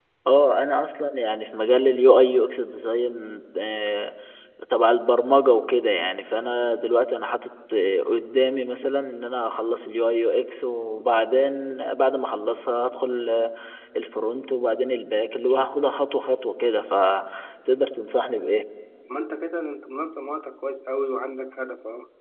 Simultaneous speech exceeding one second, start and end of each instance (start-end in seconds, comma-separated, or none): none